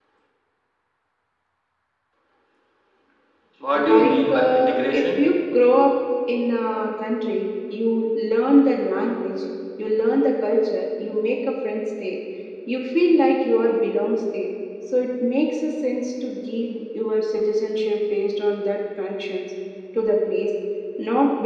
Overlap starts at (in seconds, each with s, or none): 3.7 s